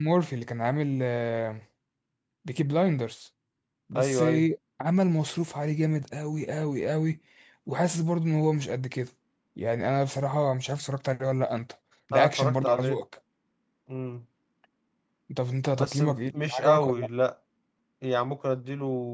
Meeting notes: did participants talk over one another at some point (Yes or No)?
Yes